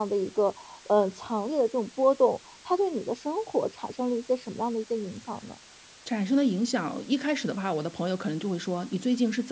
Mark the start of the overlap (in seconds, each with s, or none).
none